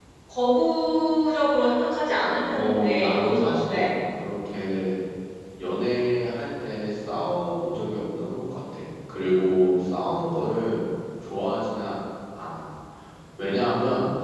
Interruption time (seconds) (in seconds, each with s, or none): 2.5 s